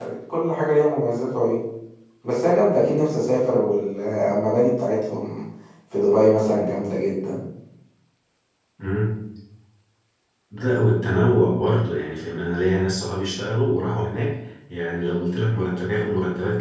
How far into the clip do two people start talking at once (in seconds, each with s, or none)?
none